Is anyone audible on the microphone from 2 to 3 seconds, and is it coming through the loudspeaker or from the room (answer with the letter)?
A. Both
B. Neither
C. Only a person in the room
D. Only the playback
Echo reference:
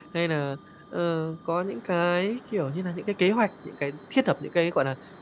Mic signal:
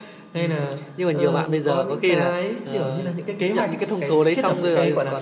A